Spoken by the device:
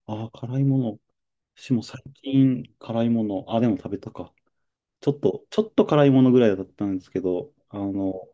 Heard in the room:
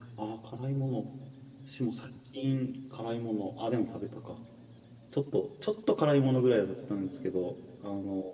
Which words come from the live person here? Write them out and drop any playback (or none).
none